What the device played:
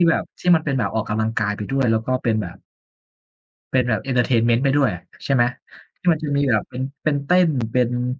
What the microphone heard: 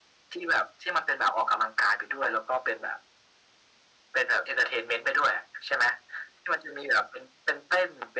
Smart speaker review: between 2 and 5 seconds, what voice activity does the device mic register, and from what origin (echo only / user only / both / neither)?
echo only